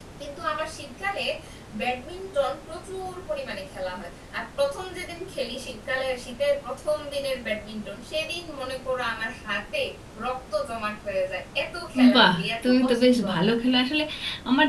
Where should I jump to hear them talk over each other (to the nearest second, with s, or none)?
12 s